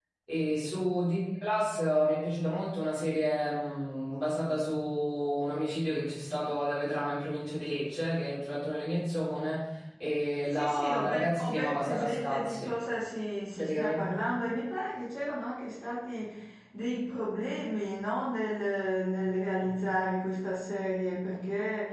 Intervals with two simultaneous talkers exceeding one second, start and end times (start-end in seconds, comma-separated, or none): 10.5-12.7